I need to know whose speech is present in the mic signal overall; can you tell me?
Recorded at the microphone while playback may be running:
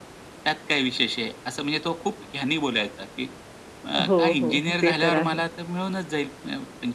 both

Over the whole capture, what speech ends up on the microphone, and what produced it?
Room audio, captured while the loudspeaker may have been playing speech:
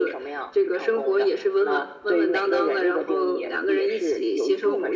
echo only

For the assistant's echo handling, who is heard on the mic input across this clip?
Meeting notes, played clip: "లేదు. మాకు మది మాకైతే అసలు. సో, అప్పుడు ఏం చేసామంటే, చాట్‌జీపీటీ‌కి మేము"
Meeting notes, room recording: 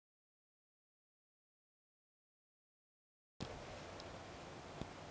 neither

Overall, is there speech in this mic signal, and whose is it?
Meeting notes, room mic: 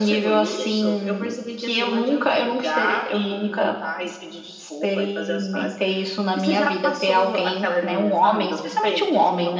echo only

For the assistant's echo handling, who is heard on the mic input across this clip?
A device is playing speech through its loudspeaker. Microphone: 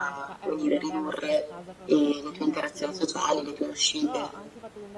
both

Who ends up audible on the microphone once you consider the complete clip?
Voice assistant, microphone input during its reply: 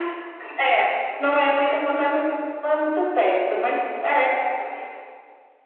echo only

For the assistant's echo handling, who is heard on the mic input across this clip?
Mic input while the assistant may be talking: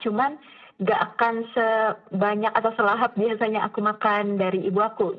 echo only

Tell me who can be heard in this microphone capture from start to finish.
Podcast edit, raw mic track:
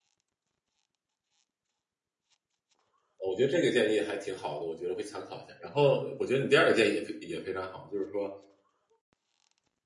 user only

